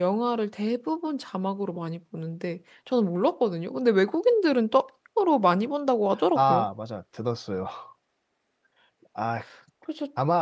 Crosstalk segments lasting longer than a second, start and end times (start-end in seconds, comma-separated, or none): none